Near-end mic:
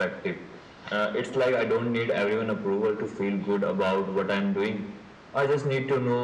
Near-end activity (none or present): none